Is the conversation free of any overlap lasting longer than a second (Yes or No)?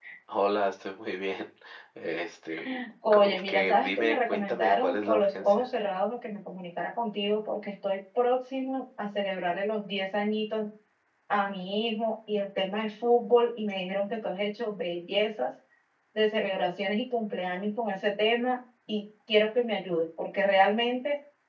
No